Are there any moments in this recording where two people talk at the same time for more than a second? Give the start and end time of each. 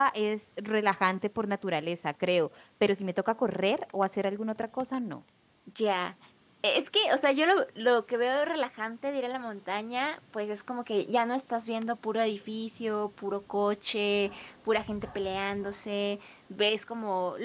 none

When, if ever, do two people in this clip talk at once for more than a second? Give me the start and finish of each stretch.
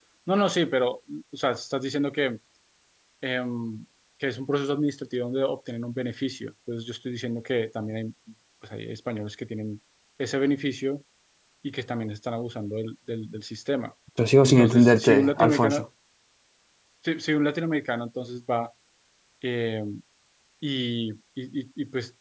14.4-15.8

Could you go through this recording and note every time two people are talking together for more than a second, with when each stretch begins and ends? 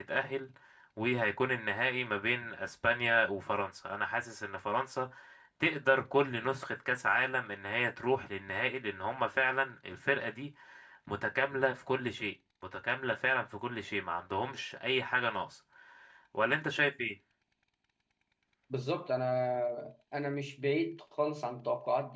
none

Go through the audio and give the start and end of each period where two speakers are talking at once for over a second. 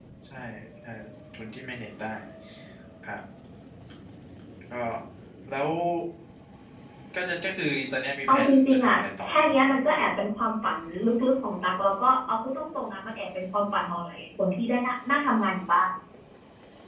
8.3-10.0

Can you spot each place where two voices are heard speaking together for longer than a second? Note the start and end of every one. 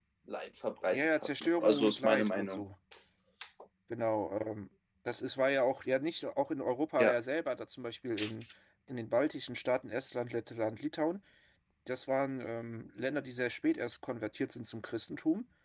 0.9-2.6

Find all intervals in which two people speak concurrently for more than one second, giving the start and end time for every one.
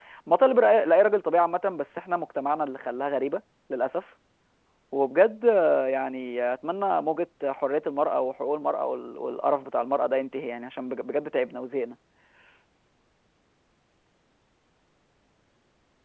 none

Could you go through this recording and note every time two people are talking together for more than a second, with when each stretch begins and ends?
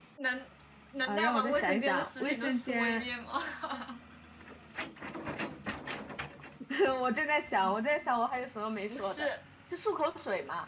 1.1-3.0

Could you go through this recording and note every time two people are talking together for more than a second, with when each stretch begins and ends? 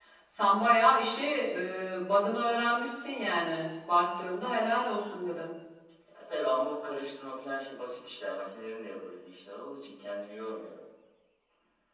none

